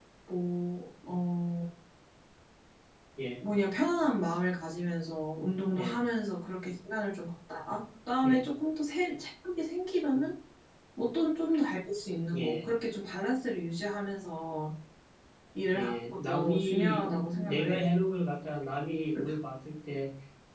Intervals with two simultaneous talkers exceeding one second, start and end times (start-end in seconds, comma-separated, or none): 15.7-17.8